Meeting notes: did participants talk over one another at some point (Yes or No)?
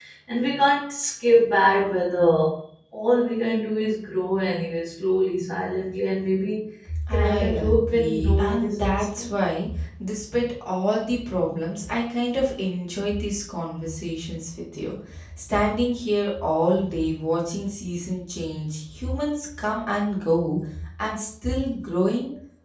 Yes